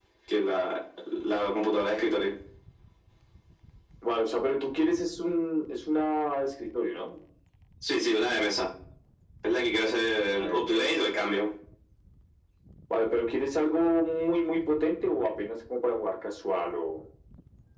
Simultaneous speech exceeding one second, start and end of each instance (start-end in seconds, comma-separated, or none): 10.2-11.4